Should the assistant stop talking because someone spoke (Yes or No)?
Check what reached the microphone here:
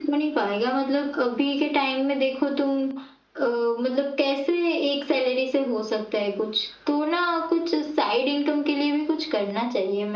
No